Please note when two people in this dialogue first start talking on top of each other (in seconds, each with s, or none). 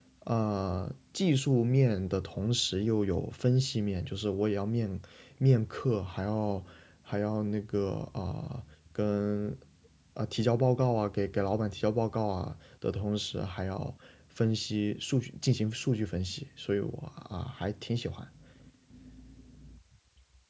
none